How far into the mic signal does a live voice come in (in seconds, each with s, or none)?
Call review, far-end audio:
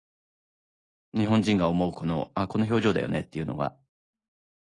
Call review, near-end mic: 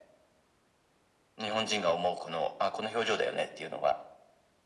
none